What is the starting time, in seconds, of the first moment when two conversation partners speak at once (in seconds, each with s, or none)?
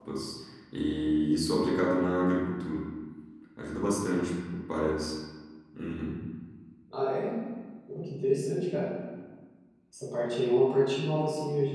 none